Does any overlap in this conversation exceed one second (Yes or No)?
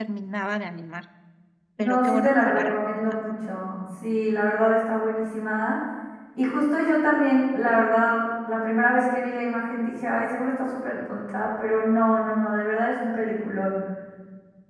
Yes